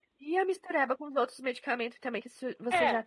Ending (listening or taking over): listening